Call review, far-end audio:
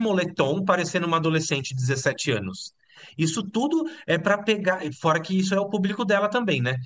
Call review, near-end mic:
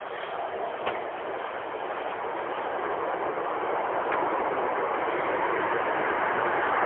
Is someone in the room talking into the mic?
No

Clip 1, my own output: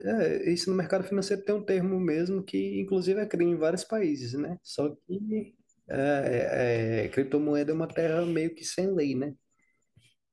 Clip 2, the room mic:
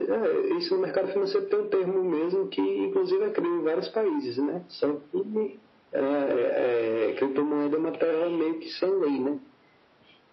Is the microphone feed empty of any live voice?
Yes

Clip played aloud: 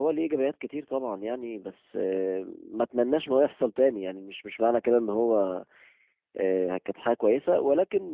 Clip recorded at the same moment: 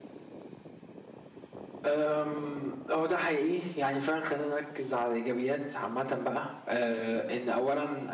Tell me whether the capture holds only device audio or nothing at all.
No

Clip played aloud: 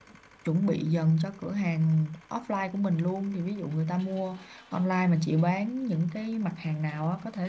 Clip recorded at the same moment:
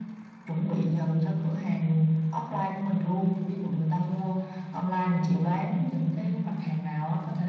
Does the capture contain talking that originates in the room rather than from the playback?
No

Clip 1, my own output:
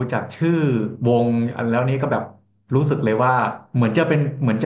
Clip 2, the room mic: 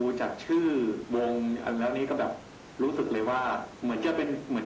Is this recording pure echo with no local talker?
Yes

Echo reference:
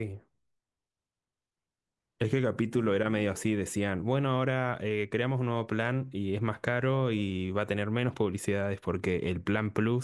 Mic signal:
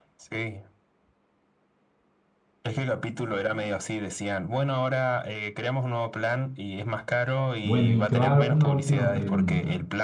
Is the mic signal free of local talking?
No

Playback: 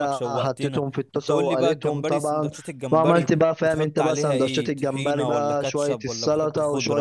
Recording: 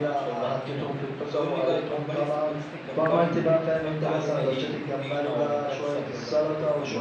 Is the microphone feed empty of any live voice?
Yes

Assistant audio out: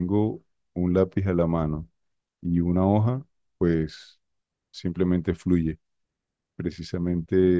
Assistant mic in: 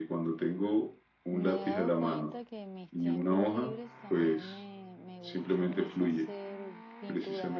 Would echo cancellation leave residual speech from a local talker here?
Yes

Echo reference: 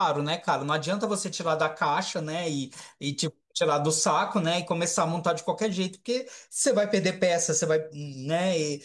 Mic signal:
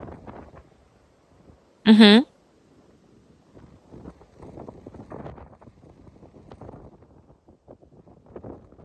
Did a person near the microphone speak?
Yes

